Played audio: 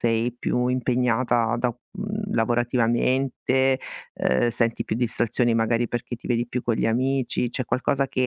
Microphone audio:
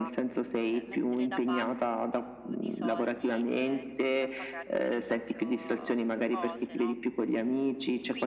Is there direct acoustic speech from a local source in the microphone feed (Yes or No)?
Yes